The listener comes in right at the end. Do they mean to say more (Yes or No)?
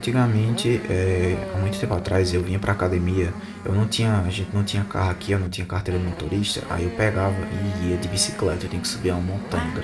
No